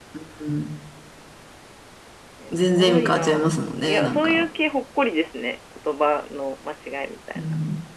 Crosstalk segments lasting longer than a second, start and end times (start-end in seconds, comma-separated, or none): 2.5-4.4